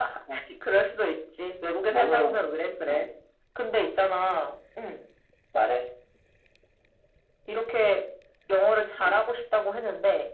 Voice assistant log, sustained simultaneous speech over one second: none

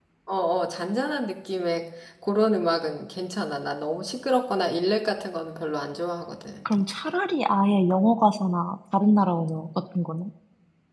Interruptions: none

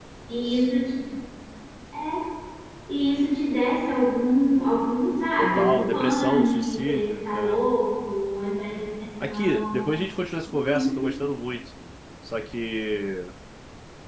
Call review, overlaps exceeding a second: present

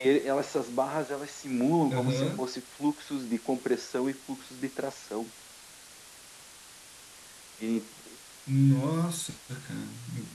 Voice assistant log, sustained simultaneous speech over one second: none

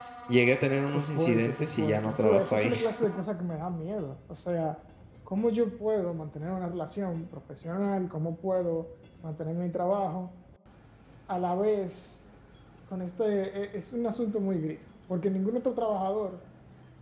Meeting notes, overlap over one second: present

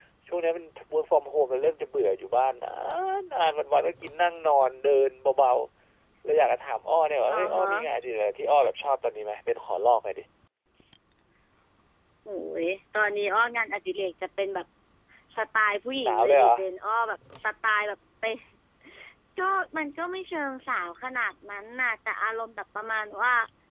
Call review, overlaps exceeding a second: none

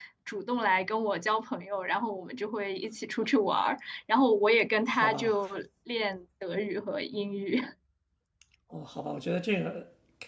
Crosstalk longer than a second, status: none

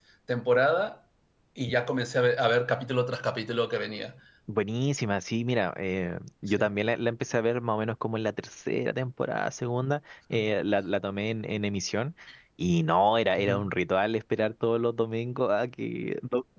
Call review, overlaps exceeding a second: none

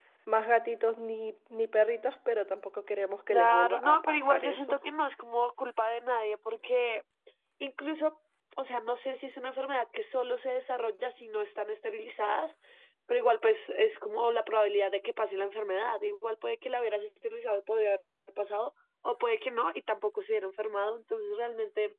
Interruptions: present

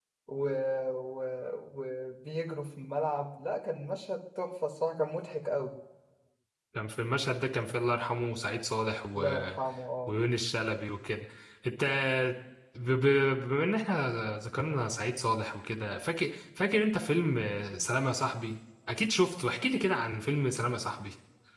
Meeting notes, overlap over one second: none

